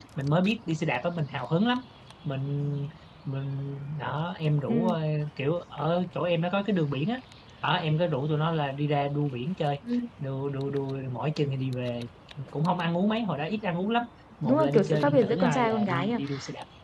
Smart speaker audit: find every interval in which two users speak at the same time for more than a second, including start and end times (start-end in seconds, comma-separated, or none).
14.4-16.1